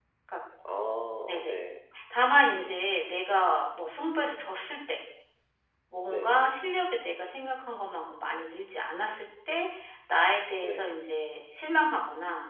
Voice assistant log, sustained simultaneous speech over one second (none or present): none